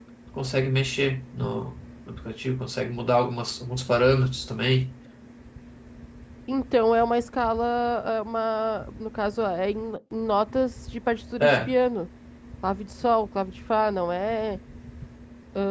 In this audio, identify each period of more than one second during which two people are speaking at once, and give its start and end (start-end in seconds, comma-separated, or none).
none